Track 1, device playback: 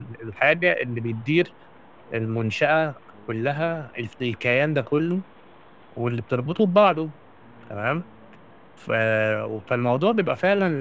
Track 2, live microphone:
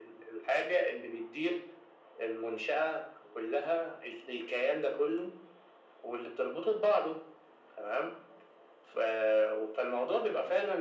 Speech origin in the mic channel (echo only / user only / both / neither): echo only